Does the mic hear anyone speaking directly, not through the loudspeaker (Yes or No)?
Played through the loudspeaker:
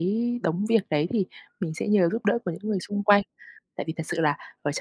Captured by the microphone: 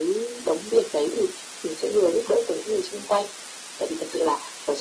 No